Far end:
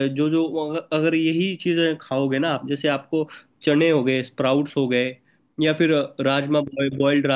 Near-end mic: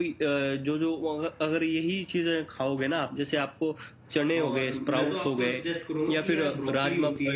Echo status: present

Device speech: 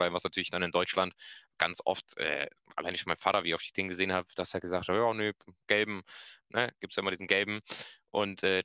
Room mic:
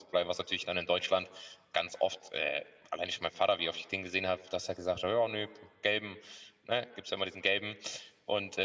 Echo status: present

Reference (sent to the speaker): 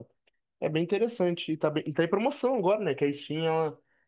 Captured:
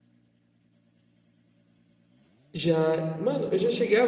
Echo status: none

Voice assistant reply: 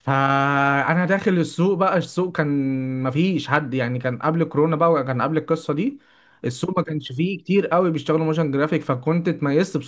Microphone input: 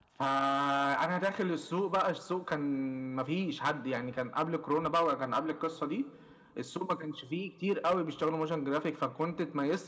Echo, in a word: present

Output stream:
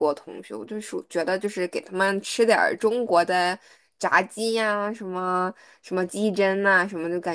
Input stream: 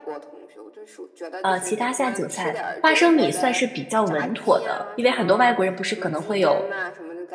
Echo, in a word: present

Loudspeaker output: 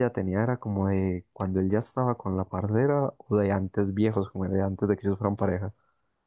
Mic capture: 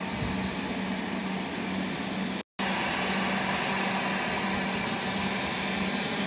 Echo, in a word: none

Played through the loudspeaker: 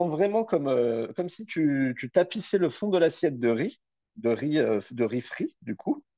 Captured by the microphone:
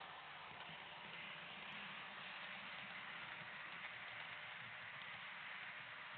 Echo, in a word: none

